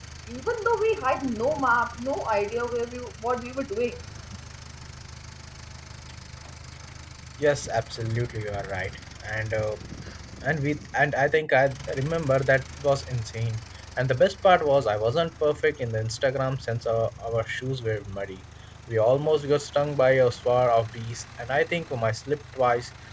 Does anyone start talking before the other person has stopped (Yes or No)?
No